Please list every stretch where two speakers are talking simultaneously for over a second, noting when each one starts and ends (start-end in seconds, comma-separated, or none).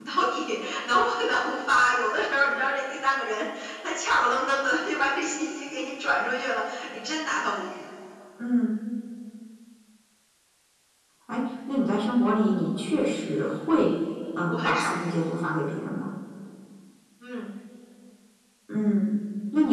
none